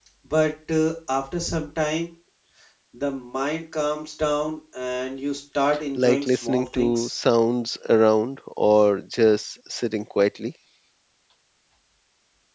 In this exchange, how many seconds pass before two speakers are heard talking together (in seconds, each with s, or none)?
6.0 s